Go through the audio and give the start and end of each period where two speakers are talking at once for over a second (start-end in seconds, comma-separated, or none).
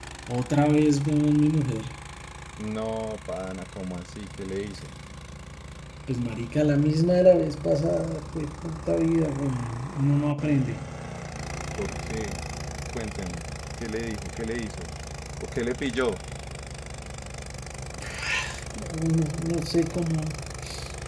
none